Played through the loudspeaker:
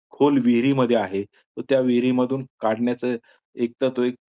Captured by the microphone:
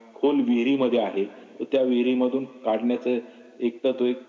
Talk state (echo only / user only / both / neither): echo only